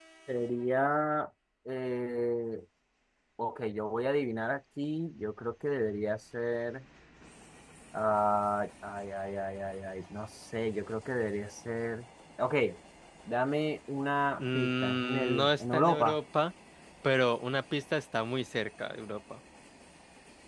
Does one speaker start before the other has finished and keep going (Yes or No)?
Yes